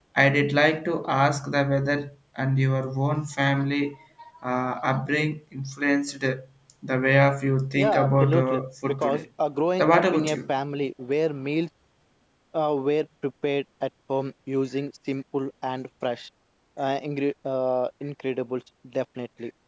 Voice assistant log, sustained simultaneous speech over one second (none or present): present